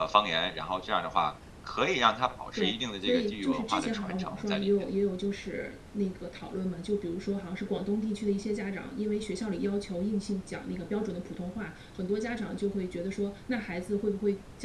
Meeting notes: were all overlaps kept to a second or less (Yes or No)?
No